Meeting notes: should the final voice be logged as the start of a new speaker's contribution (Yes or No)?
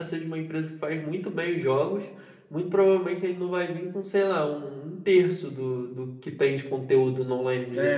Yes